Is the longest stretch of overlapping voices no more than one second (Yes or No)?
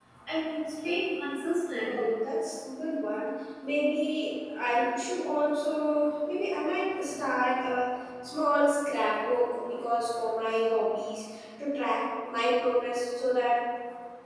Yes